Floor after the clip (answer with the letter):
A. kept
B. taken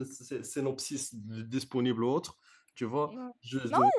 B